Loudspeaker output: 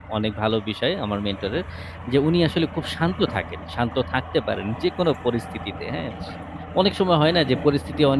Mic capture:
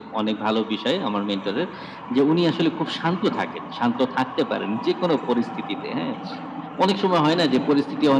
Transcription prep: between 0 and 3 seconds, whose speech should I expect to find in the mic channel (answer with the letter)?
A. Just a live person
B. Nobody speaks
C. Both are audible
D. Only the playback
D